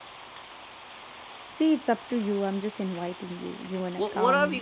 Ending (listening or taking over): taking over